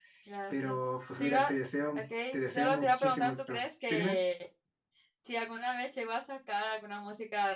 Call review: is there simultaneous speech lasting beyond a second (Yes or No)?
Yes